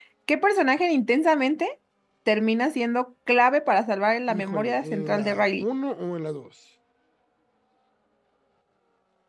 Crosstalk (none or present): present